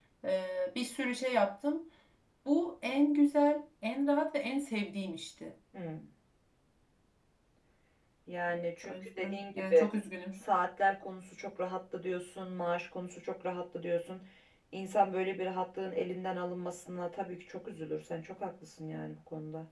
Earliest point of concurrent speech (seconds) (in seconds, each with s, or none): 8.5 s